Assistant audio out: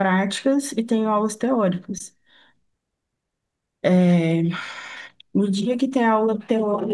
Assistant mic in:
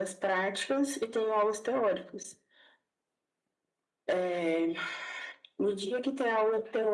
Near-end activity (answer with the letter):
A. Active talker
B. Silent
B